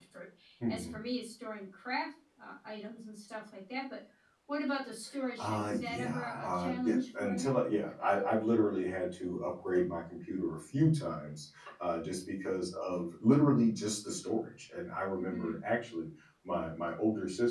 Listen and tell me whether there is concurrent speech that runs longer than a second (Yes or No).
Yes